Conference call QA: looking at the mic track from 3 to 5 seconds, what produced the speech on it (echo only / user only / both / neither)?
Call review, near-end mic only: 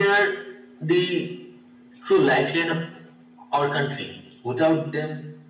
echo only